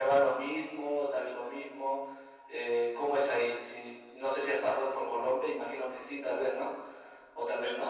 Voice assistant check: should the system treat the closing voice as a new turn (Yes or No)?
No